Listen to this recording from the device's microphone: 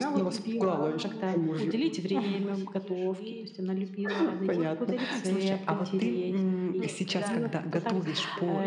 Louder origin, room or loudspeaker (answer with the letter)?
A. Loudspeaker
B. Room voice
A